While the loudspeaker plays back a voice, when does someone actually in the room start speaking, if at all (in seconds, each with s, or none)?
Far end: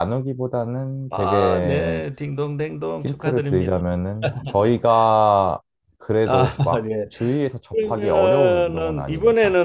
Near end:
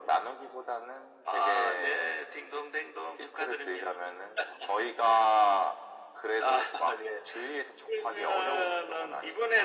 none